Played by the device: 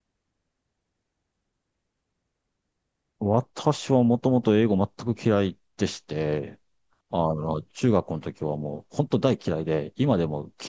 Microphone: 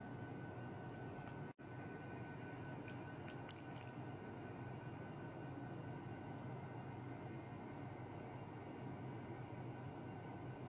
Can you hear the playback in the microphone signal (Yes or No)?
No